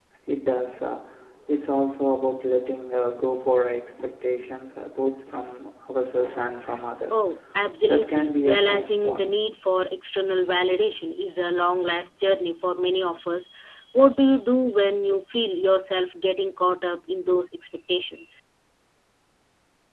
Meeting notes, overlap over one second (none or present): present